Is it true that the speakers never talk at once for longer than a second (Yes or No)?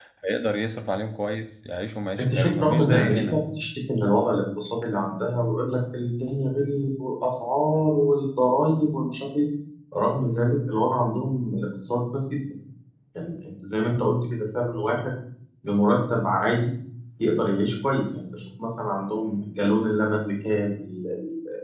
No